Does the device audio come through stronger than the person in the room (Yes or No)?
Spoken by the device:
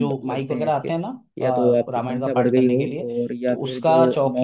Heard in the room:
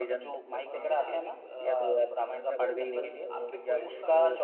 Yes